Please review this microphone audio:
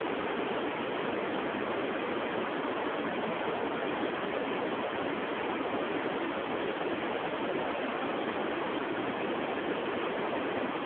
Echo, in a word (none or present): none